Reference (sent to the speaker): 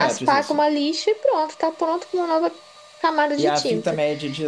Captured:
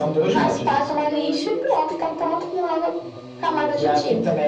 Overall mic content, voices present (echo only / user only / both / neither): both